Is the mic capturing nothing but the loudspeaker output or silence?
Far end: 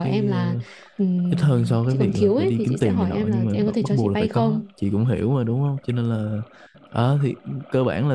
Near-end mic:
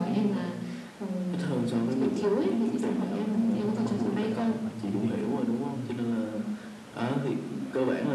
No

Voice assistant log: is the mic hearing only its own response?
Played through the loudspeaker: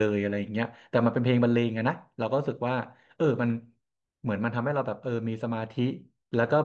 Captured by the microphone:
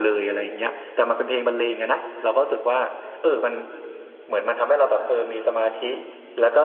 Yes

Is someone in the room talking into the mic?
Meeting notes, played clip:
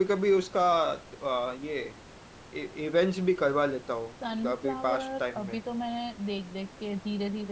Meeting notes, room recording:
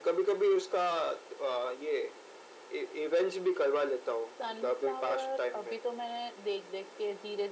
No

